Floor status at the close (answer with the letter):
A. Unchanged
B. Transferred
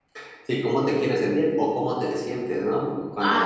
A